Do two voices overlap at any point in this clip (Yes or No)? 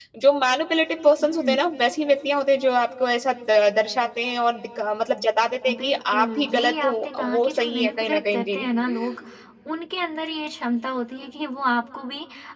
Yes